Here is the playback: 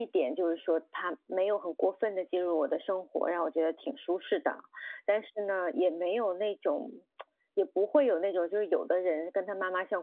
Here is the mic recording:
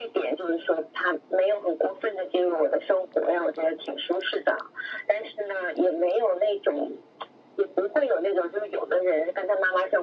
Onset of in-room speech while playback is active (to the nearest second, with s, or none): none